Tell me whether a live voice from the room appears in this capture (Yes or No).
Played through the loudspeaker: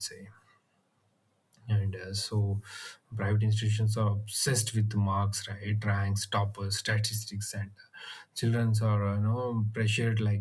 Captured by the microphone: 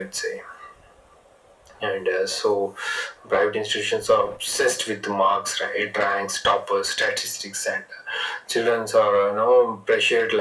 No